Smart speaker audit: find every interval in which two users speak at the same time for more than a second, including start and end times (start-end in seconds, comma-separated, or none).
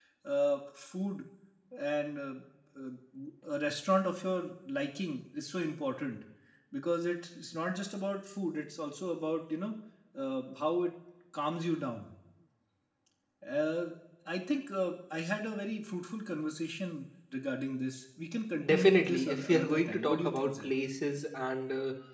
18.6-20.7